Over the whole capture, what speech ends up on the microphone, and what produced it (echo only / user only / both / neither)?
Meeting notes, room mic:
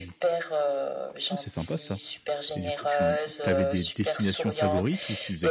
both